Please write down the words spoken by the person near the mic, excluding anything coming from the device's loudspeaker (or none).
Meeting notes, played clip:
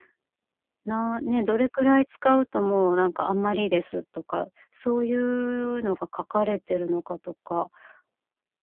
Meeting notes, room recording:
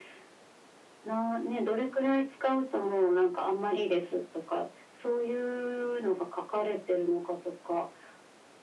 none